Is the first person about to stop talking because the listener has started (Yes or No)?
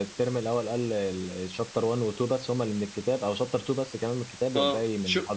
Yes